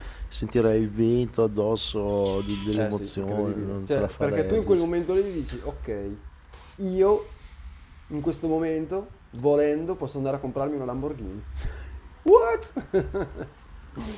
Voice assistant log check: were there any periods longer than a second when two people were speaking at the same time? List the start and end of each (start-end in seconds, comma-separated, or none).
2.7-4.9